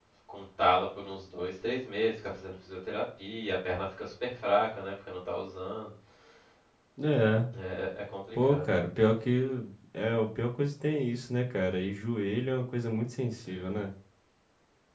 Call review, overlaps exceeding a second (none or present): none